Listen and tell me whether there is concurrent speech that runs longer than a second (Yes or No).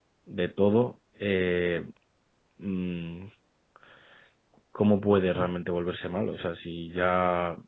No